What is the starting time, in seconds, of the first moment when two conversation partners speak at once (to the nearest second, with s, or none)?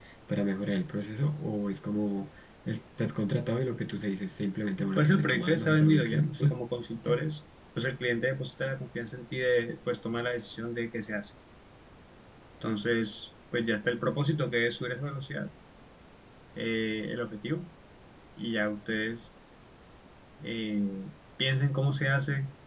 5 s